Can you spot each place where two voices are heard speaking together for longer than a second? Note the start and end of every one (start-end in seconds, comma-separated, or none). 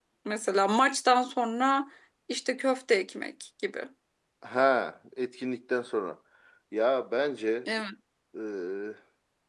none